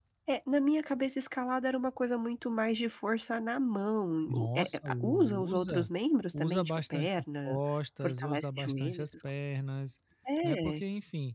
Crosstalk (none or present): present